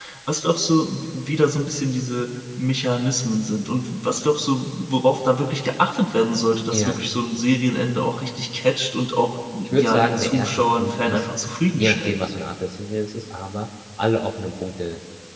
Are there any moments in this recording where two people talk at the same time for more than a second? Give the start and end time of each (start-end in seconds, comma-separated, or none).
9.6-11.2